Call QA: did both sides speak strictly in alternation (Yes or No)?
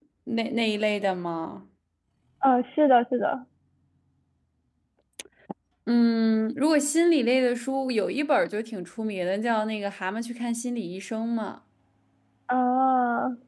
Yes